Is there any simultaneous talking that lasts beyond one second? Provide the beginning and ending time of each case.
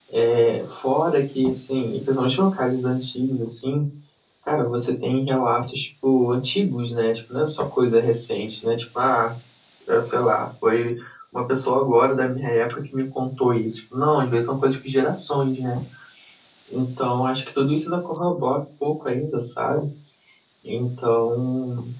none

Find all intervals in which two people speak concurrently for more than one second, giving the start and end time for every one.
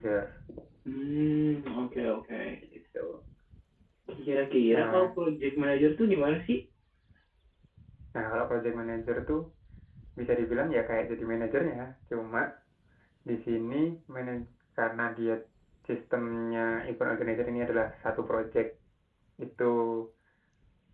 none

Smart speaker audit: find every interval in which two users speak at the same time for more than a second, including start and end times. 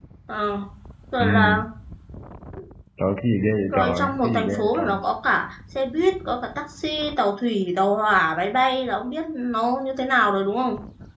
3.7-5.0

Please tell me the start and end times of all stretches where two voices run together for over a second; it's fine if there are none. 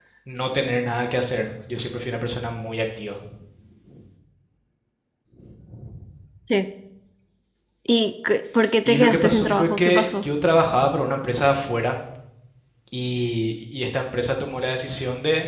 8.8-10.2

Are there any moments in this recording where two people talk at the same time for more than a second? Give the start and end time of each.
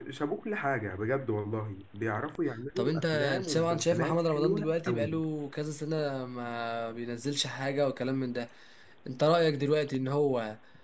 2.8-5.2

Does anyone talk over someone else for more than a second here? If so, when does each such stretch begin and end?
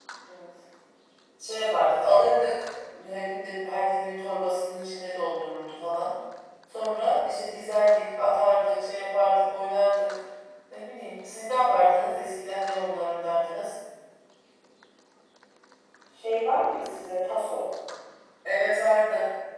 none

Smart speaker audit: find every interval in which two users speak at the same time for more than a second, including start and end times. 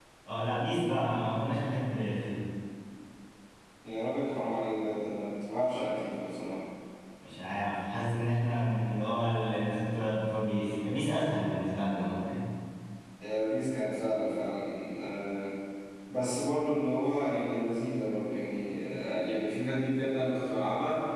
none

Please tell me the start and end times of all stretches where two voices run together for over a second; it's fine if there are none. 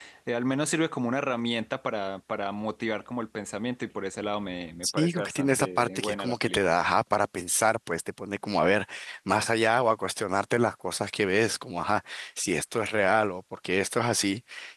4.8-6.7

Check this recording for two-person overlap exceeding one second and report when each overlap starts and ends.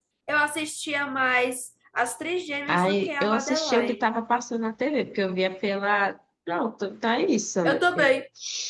2.7-4.1

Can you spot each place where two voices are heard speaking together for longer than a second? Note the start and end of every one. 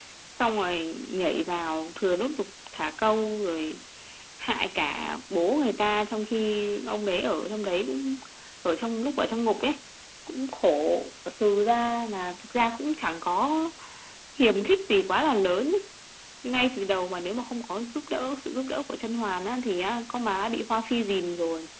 none

